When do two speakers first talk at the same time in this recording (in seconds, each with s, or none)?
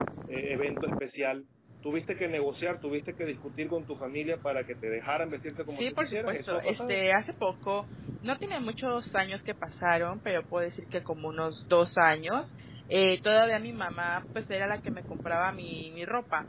5.8 s